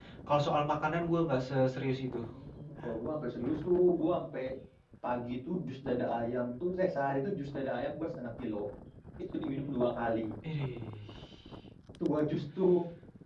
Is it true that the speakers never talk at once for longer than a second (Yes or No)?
Yes